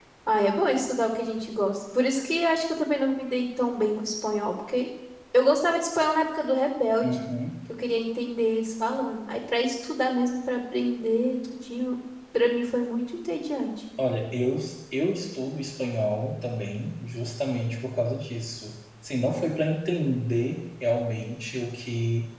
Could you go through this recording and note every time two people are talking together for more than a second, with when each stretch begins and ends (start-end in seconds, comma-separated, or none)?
none